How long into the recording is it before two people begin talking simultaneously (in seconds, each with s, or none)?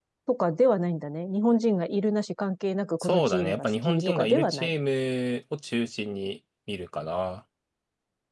3.0 s